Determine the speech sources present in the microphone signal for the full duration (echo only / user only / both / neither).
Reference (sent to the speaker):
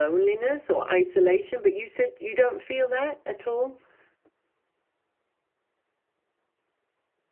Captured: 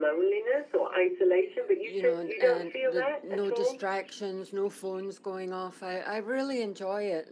both